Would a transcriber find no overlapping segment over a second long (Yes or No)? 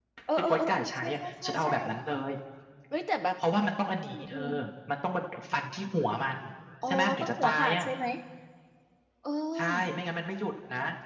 No